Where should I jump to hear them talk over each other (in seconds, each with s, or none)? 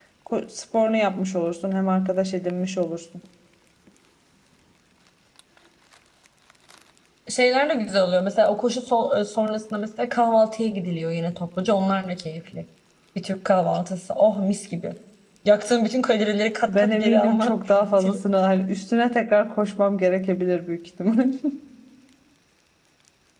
16.7 s